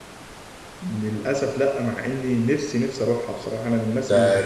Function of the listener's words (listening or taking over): taking over